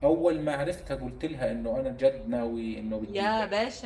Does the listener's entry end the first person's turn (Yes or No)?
Yes